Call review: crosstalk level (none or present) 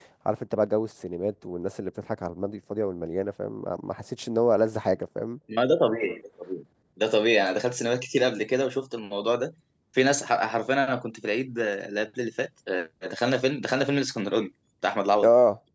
none